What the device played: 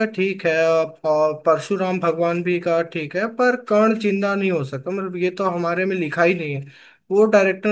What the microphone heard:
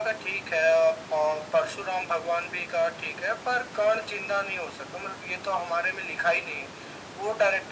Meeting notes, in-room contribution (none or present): none